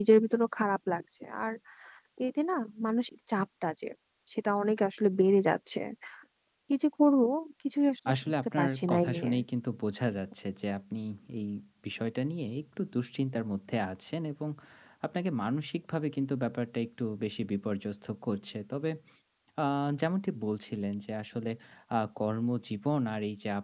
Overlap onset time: 8.1 s

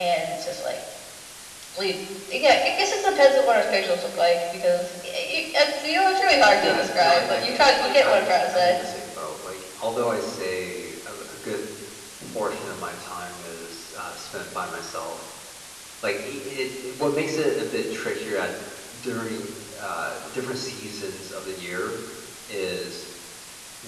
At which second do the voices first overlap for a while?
6.6 s

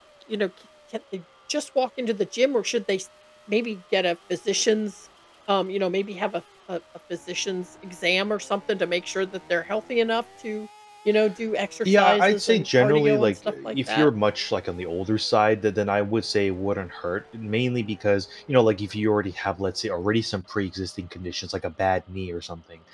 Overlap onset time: 11.8 s

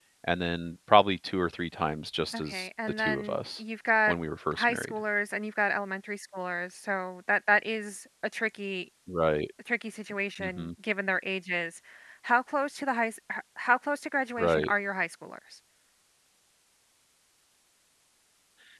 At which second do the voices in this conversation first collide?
2.3 s

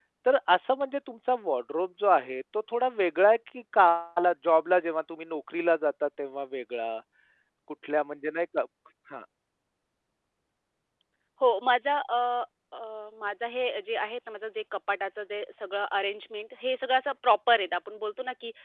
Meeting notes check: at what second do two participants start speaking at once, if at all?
none

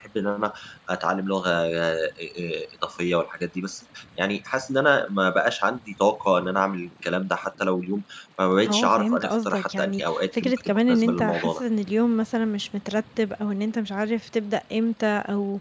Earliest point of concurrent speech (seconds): 8.6 s

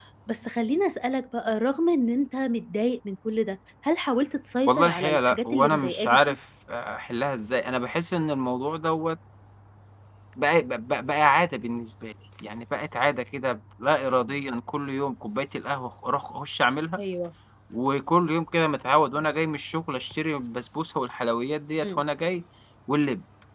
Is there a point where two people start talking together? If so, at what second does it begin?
4.7 s

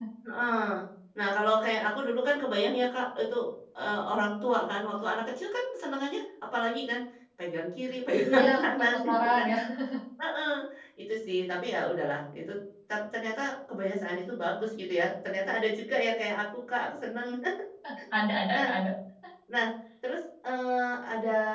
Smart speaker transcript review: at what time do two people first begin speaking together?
8.3 s

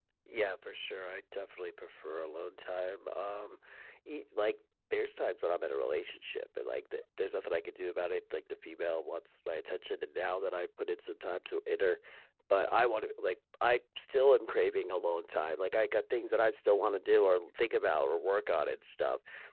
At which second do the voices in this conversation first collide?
none

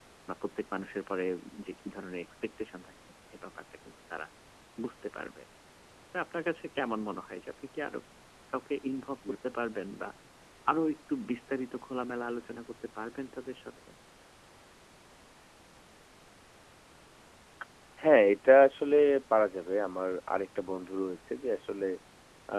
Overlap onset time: none

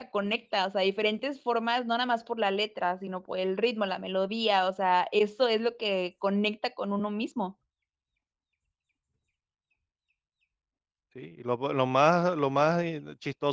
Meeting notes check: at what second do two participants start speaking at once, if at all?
none

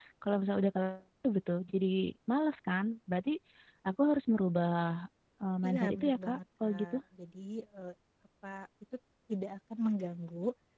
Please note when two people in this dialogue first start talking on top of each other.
5.6 s

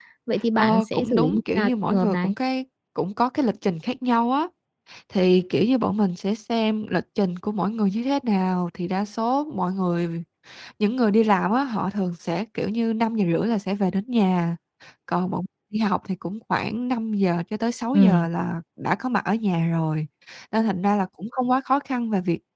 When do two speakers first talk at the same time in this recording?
0.6 s

